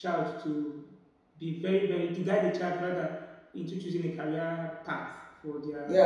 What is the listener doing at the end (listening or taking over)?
taking over